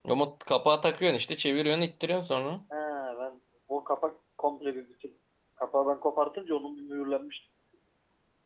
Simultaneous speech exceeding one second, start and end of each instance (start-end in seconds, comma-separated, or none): none